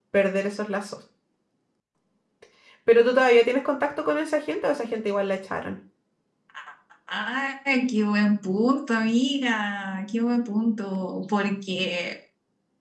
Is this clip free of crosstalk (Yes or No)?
Yes